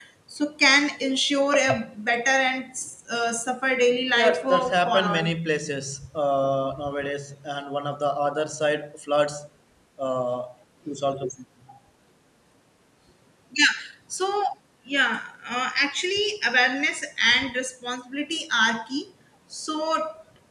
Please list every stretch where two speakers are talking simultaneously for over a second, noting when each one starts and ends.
4.1-5.3

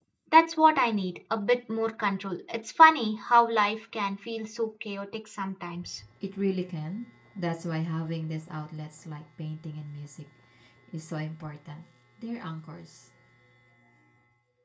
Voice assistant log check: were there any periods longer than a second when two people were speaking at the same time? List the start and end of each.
none

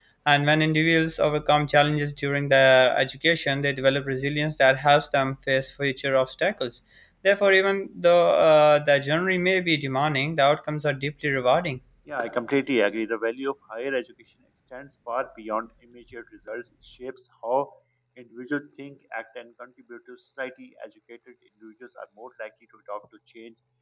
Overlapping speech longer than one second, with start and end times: none

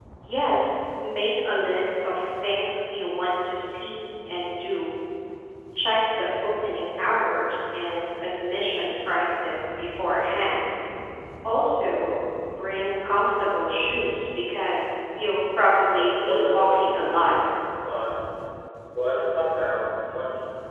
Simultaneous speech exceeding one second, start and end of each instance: 16.0-17.3

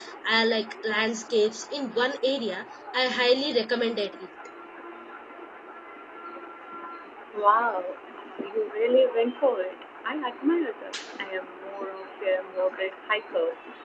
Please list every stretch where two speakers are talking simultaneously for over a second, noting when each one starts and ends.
none

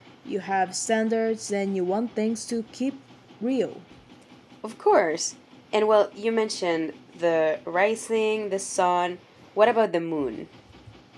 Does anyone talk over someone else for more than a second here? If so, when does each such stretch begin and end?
none

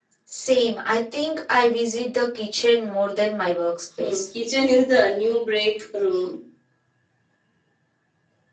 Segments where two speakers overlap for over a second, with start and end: none

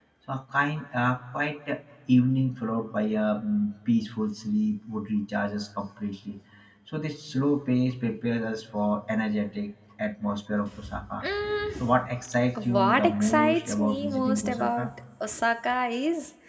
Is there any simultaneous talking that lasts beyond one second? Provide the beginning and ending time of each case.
12.7-14.9

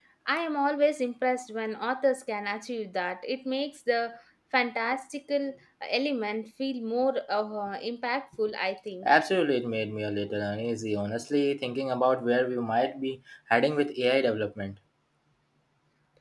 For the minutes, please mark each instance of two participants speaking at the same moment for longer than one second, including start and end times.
none

